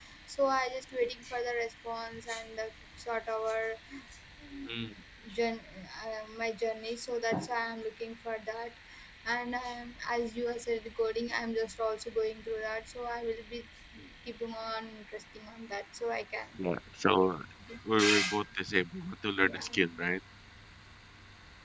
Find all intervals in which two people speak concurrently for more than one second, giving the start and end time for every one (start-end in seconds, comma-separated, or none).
none